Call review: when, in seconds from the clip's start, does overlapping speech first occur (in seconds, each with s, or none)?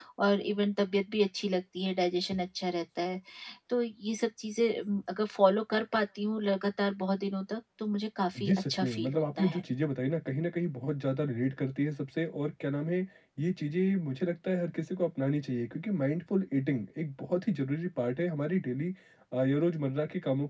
8.3 s